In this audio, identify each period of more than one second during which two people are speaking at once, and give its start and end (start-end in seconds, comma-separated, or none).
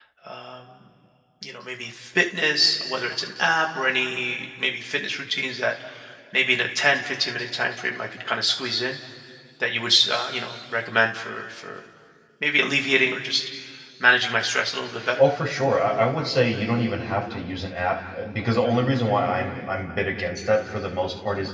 none